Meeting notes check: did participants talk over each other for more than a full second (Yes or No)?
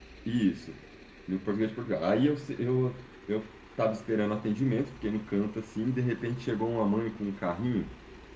No